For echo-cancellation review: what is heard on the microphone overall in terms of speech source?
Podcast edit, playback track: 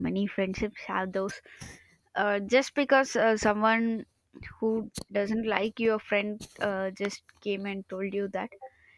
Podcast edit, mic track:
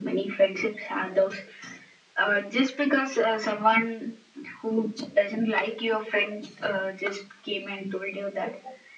echo only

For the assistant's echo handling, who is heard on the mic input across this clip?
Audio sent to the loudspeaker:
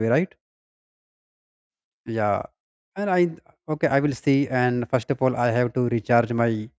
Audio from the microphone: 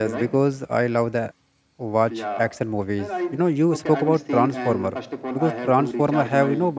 both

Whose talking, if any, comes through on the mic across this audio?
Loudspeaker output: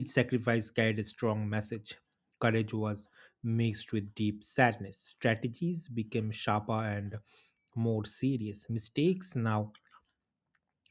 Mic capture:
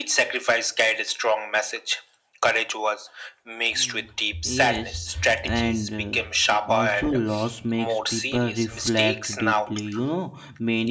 both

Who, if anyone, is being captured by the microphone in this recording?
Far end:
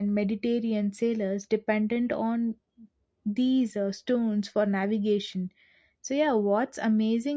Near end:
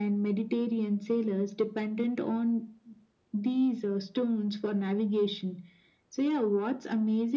echo only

